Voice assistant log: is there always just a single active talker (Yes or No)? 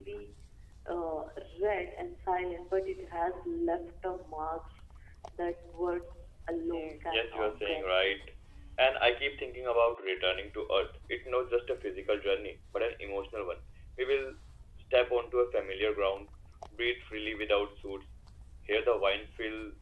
No